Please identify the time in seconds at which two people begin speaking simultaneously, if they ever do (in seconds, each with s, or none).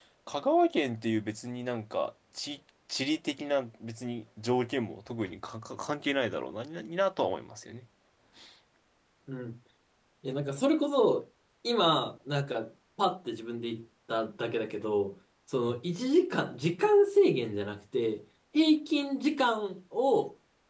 none